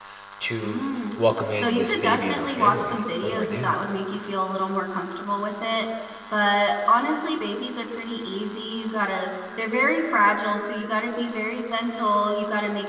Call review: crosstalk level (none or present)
present